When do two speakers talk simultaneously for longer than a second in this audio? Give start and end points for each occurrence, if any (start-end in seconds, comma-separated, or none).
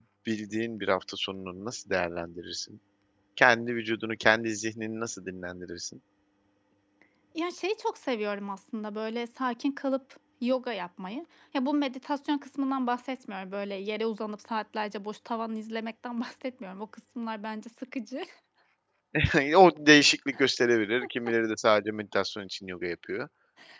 none